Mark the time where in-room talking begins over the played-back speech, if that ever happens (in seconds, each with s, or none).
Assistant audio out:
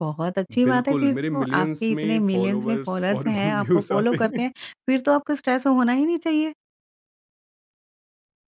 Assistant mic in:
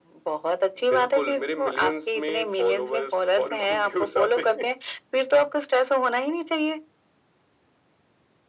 none